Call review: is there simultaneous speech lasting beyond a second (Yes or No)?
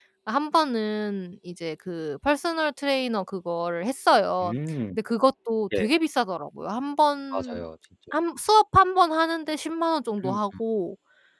No